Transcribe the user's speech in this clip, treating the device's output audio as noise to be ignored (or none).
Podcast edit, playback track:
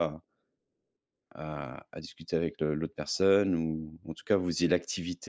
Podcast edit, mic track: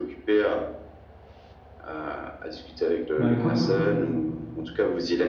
Bah, écoute